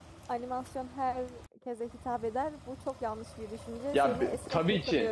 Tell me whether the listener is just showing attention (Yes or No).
No